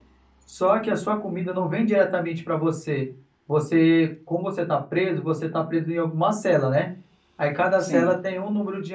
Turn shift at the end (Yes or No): No